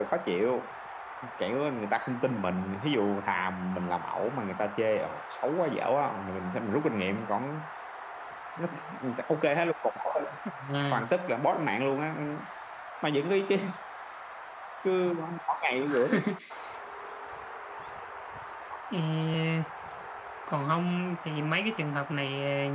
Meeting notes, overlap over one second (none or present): none